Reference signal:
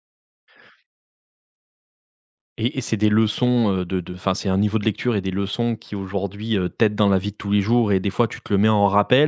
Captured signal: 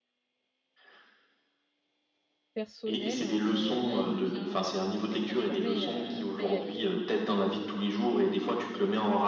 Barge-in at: 3 s

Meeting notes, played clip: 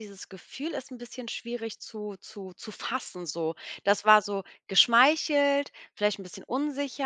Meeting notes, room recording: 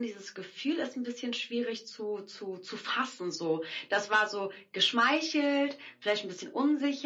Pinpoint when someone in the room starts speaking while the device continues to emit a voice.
none

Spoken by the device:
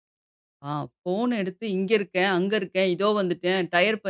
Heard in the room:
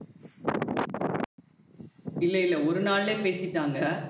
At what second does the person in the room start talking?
2 s

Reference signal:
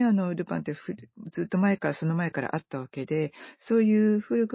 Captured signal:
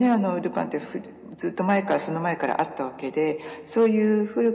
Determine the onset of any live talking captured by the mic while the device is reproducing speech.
none

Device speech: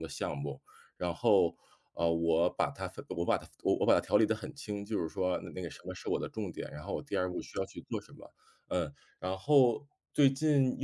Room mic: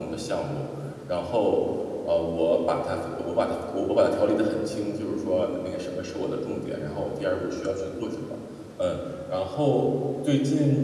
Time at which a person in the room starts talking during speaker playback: none

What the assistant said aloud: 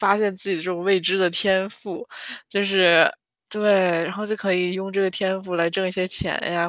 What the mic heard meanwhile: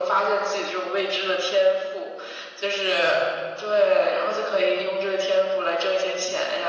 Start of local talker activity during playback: none

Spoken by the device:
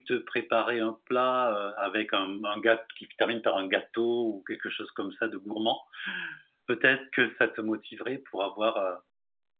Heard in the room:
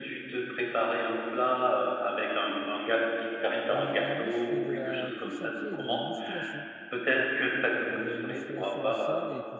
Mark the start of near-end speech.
4 s

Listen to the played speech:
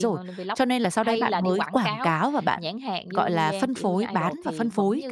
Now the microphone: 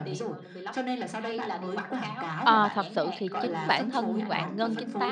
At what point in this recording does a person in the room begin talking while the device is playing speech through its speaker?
2 s

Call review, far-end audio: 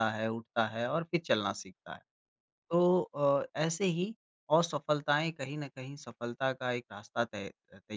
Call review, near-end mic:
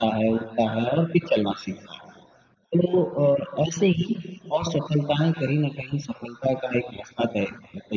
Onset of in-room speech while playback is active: none

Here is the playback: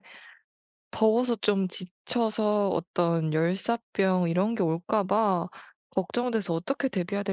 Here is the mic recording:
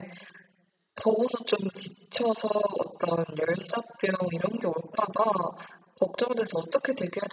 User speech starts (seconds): none

